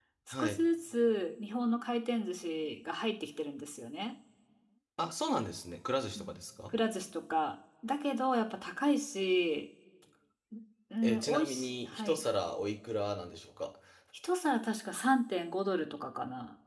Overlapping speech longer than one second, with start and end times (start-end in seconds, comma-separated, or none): 11.0-12.2